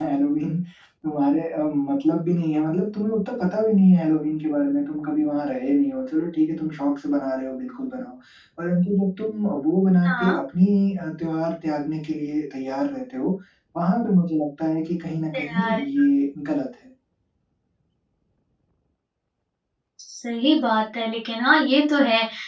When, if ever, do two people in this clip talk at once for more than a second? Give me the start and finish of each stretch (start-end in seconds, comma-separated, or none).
none